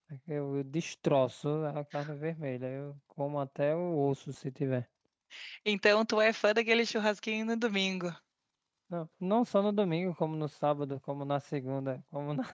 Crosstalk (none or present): none